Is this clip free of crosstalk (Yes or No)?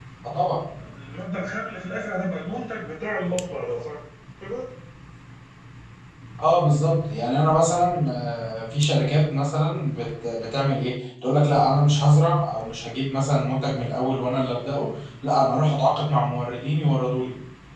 Yes